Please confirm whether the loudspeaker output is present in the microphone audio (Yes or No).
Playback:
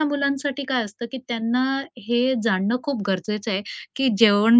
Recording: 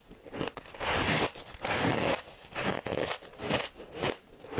No